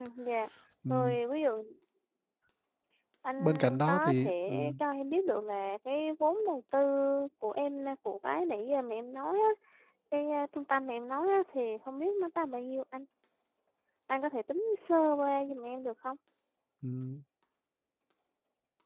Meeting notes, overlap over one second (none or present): present